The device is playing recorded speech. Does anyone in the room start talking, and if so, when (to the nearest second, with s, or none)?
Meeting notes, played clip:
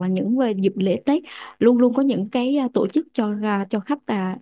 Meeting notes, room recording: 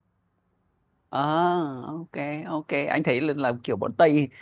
1 s